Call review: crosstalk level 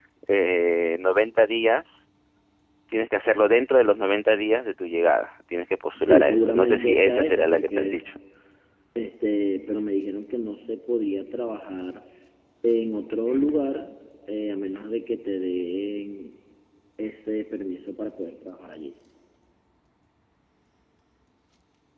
present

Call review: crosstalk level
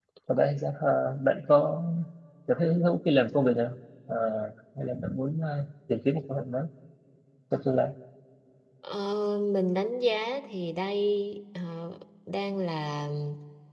none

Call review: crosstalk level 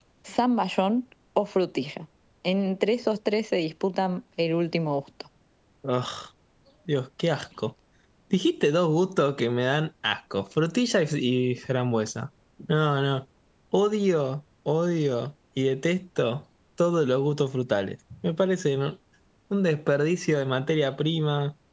none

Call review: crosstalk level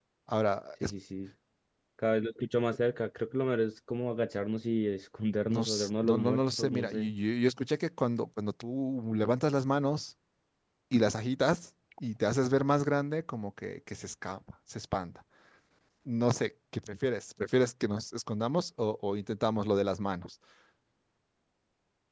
present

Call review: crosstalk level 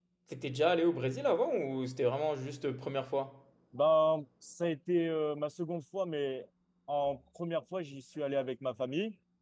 none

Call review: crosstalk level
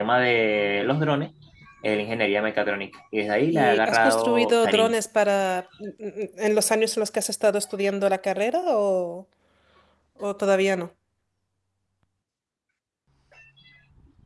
present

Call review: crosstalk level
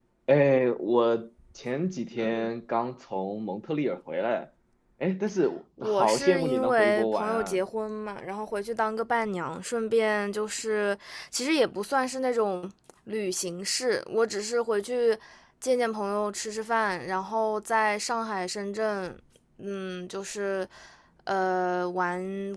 present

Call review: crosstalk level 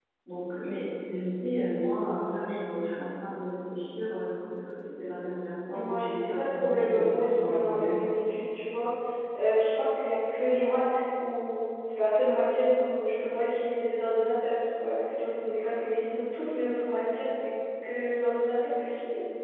present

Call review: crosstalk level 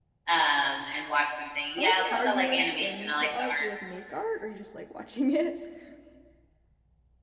present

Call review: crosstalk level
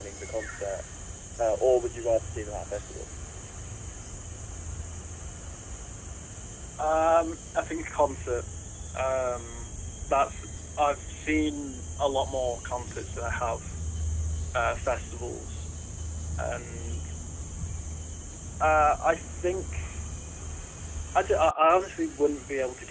none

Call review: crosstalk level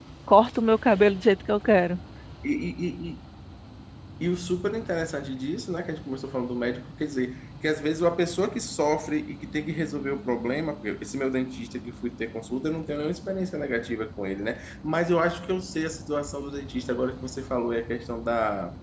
none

